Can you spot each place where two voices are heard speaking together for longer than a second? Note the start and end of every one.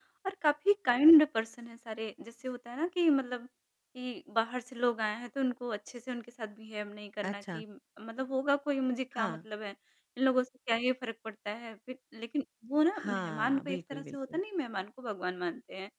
13.0-14.4

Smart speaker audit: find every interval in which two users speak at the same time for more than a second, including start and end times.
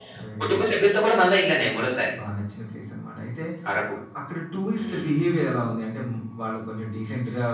none

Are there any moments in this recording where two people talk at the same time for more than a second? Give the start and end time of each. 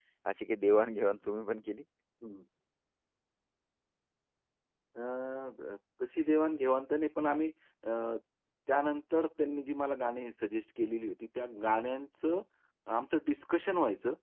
none

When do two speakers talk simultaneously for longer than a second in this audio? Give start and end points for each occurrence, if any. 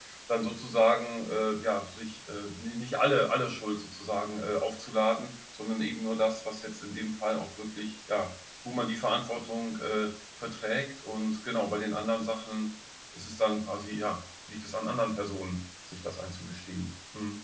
none

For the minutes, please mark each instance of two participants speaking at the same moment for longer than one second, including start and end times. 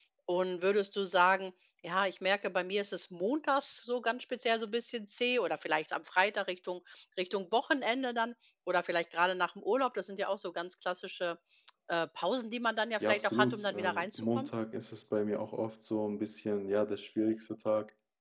13.1-14.5

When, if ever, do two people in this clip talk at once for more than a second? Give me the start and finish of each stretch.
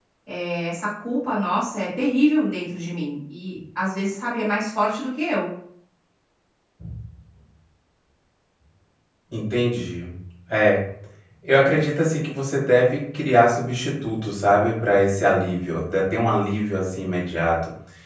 none

